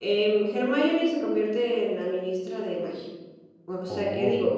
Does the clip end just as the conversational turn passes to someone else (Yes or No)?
No